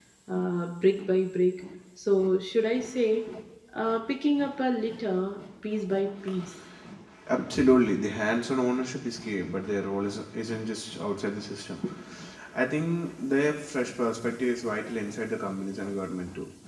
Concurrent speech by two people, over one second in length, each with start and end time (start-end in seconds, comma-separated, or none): none